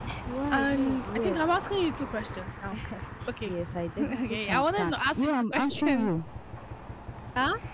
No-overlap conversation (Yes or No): No